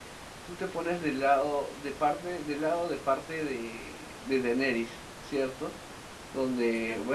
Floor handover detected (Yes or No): No